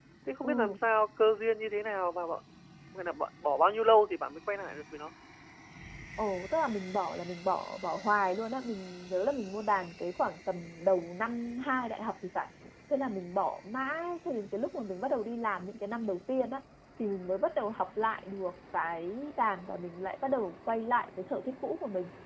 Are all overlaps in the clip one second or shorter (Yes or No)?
Yes